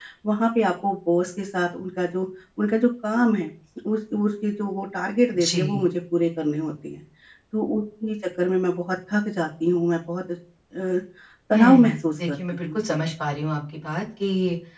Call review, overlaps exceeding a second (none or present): present